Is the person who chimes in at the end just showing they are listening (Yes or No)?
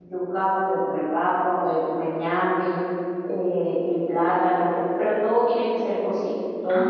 No